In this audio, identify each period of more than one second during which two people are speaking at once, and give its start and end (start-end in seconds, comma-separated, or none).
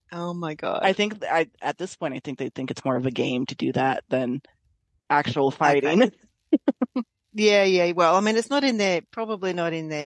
none